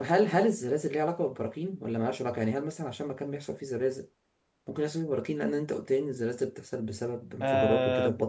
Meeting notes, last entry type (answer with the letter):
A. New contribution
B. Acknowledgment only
A